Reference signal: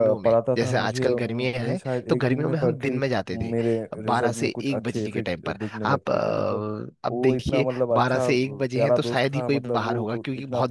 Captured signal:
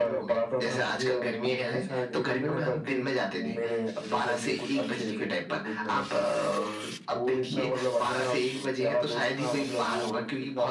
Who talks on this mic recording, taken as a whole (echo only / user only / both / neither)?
echo only